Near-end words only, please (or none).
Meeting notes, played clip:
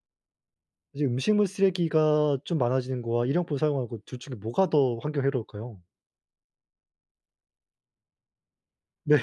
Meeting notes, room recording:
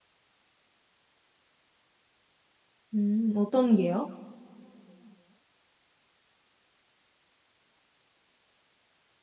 음 어떤 게요?